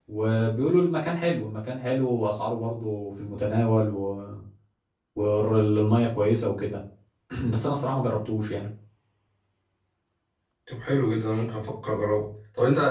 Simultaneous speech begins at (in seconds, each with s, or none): none